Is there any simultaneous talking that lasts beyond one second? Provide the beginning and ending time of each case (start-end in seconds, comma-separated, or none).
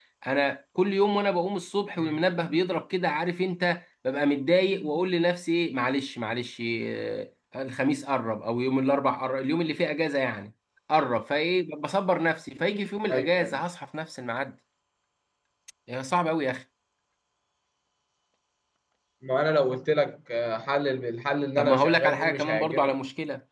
21.6-22.9